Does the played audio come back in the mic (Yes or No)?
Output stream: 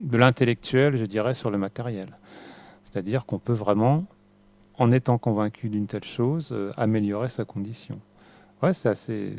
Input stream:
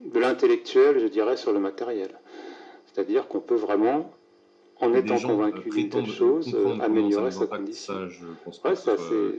Yes